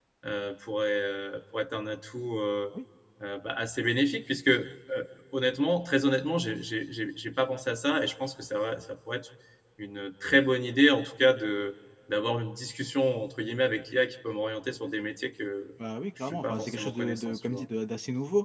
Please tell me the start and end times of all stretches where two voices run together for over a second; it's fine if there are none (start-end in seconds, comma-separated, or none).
16.2-17.6